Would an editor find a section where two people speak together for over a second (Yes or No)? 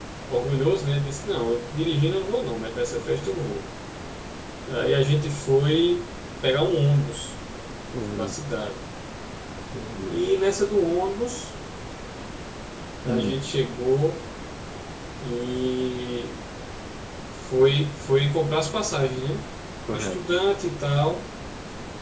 No